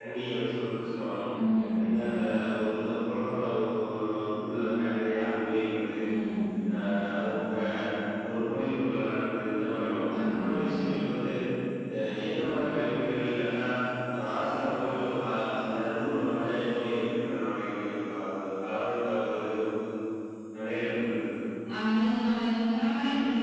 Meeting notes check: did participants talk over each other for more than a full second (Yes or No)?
No